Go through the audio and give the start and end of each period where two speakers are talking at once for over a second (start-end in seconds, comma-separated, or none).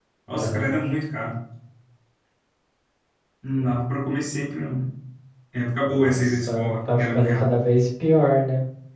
5.8-7.5